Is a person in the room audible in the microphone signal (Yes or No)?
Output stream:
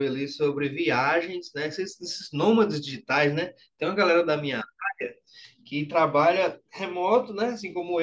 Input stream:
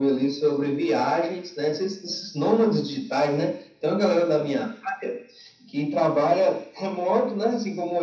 No